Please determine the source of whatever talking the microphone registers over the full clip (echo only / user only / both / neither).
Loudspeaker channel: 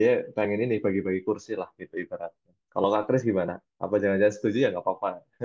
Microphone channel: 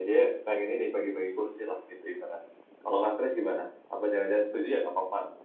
echo only